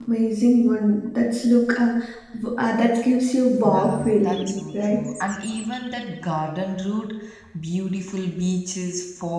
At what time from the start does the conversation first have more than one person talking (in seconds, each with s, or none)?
3.6 s